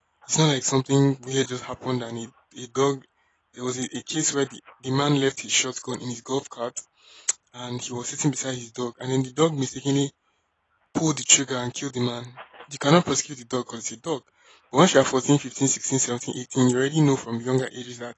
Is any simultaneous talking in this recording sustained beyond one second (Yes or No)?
No